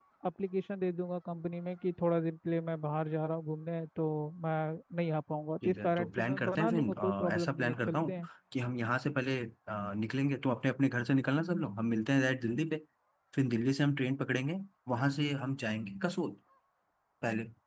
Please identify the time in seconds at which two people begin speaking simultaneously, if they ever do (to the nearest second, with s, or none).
6 s